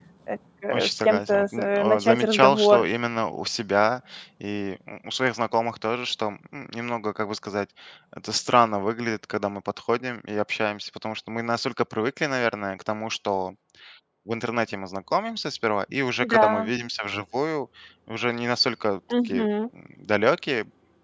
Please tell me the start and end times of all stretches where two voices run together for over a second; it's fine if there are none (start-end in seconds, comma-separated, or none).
0.7-2.8